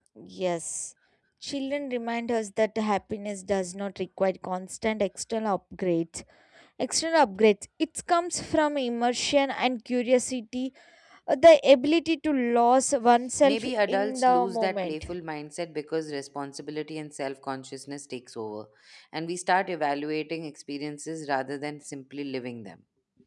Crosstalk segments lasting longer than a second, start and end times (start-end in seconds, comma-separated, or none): 13.4-14.9